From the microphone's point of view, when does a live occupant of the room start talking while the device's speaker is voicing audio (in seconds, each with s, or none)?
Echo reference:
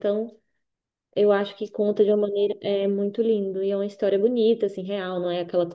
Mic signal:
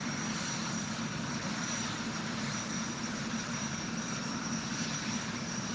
none